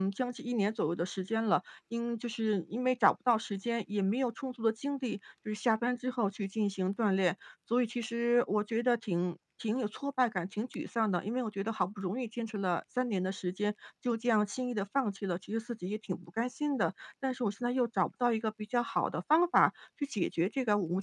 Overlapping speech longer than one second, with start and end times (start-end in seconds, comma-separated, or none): none